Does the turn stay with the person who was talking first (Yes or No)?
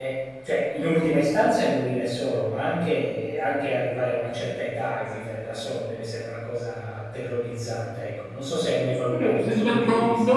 No